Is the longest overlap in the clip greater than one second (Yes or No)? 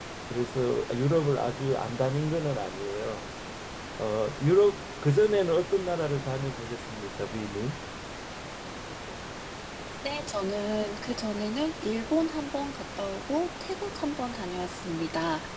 No